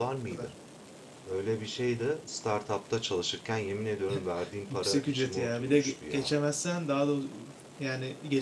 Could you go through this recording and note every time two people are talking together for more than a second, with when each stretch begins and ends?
4.7-6.3

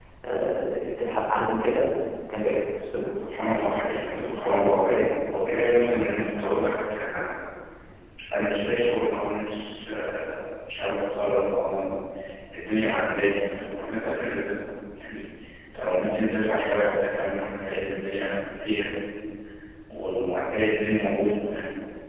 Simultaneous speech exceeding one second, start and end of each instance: 3.4-5.2

